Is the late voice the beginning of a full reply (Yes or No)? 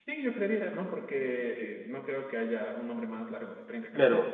Yes